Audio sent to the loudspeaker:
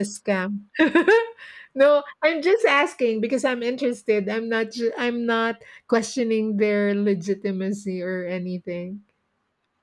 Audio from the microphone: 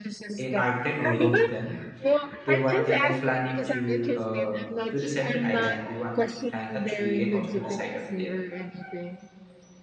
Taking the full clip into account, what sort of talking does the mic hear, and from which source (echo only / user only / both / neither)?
both